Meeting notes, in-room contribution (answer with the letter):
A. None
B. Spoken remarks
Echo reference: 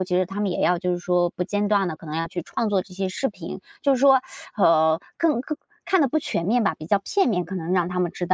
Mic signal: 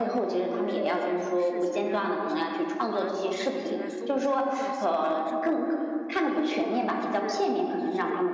B